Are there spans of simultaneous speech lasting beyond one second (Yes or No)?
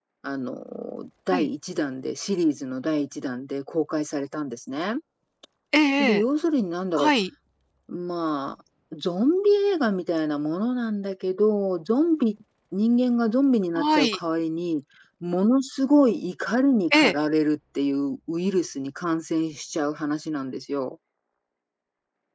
No